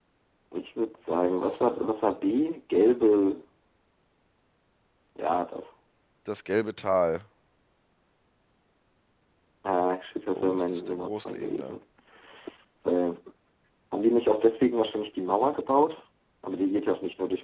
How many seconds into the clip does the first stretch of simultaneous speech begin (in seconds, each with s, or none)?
10.3 s